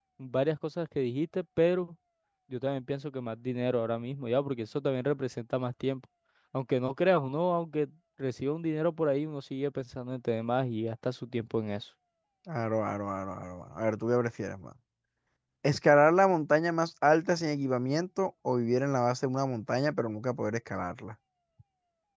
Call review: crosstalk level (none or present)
none